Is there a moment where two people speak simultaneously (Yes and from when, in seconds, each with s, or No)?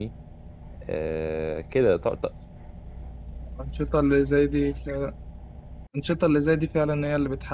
No